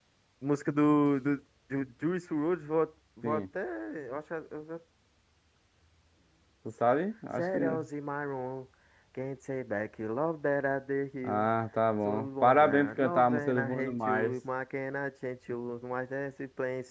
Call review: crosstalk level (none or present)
present